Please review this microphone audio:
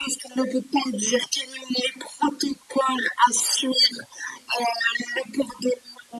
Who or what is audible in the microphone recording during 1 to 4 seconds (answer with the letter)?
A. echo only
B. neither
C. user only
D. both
A